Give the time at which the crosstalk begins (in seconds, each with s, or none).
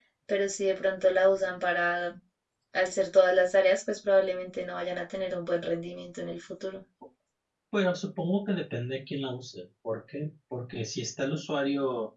none